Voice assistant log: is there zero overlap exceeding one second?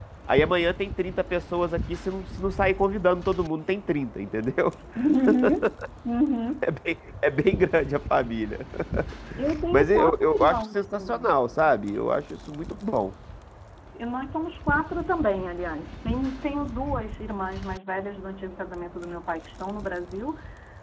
No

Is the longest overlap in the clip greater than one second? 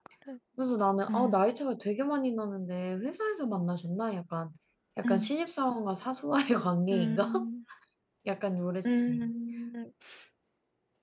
No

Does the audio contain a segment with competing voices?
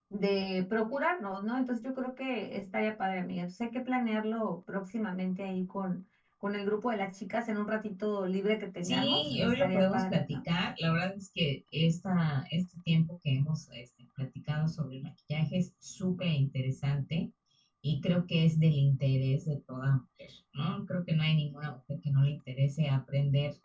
Yes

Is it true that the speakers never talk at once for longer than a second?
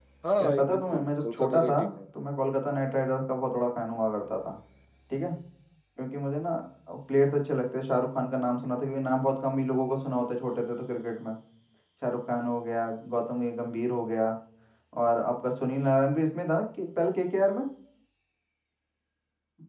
No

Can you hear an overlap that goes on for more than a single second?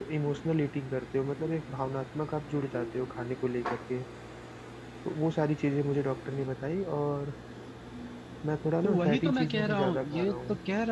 Yes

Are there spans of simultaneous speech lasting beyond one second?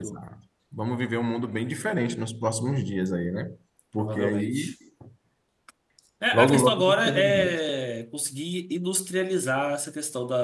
Yes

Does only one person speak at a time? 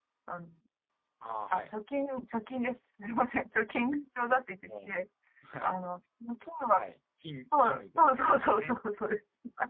No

